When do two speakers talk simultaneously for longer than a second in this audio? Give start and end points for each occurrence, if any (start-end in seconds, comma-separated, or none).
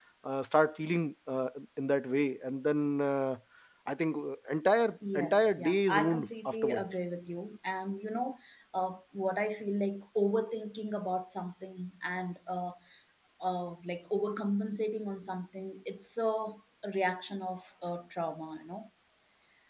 5.2-6.8